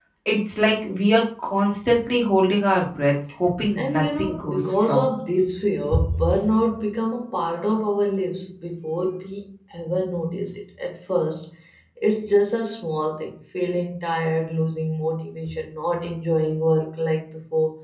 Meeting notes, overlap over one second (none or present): present